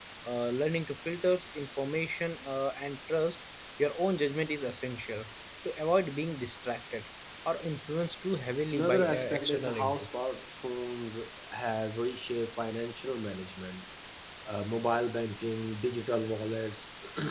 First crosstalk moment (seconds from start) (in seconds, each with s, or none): 8.7 s